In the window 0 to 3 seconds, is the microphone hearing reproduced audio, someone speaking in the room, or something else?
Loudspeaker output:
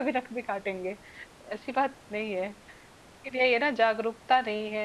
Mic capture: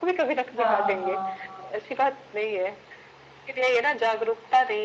both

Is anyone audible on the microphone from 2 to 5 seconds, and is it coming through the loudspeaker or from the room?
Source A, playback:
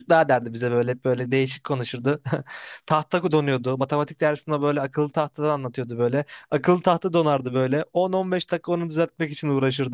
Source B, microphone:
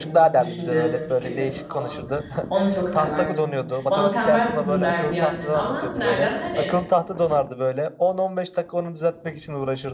both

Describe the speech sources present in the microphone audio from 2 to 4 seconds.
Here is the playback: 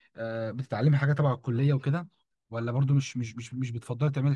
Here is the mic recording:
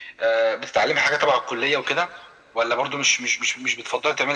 echo only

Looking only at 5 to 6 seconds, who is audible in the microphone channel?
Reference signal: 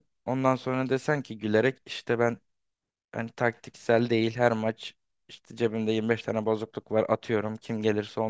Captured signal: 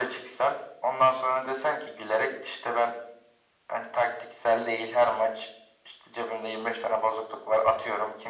echo only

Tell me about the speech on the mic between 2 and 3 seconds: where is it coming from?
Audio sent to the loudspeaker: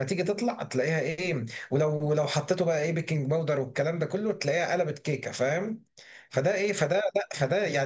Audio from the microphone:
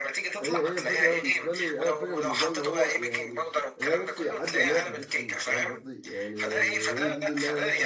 both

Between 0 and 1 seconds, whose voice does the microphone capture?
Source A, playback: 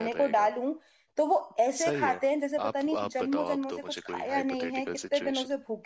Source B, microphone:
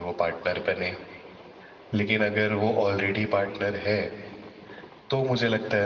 user only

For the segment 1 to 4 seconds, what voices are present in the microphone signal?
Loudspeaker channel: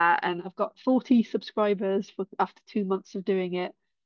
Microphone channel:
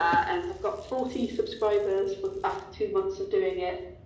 echo only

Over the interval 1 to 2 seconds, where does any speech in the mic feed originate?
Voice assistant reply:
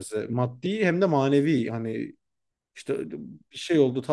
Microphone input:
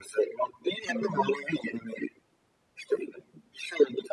both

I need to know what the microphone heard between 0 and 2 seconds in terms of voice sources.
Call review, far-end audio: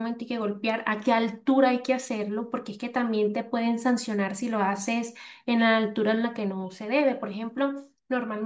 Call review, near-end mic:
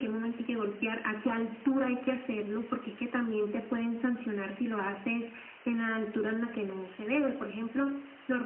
echo only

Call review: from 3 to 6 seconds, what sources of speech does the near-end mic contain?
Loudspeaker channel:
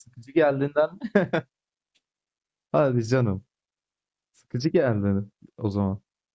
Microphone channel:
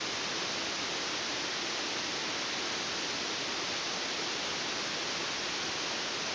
neither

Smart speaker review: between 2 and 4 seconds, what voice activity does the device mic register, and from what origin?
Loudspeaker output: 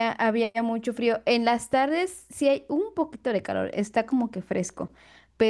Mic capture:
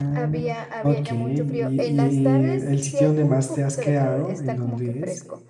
both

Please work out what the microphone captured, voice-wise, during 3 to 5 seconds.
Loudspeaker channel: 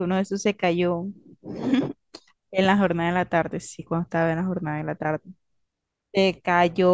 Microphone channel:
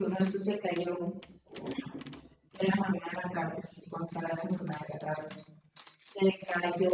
echo only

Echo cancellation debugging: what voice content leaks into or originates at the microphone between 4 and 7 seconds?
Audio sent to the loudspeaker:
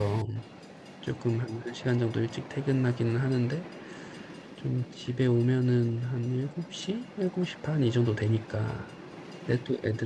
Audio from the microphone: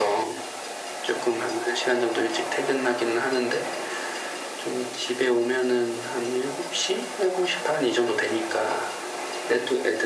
echo only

